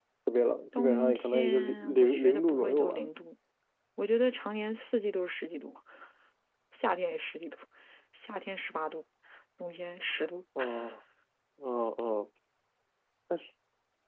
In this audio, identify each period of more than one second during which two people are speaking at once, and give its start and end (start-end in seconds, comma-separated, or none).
0.8-3.0